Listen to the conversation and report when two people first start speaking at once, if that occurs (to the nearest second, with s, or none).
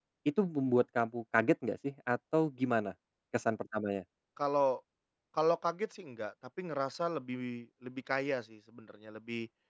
none